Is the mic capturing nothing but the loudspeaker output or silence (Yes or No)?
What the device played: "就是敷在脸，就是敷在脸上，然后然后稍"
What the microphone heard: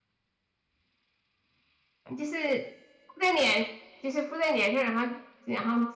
Yes